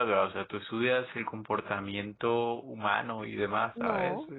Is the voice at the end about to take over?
Yes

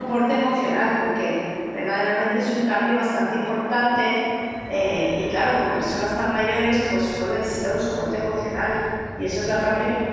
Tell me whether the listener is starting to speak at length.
No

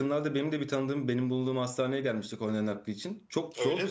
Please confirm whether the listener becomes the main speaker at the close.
No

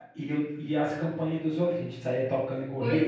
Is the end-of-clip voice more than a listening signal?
Yes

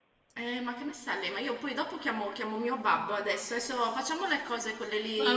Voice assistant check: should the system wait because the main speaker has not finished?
No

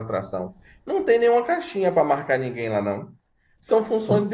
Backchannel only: Yes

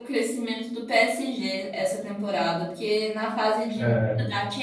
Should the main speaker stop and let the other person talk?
No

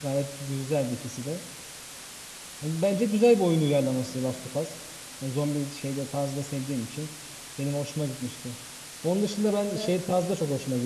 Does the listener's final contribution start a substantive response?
No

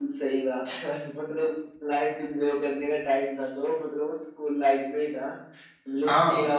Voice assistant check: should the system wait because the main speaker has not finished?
Yes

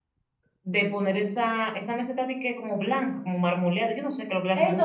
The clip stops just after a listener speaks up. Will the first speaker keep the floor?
No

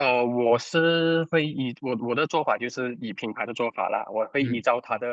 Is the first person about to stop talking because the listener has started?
No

